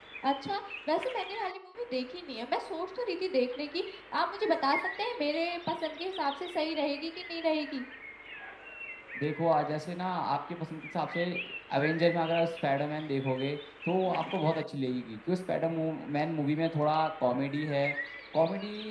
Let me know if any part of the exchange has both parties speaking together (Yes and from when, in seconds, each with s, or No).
No